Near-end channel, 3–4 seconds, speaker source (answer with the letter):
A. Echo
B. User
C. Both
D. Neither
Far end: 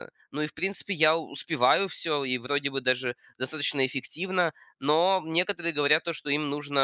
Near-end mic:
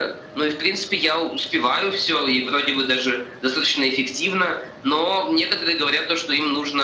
A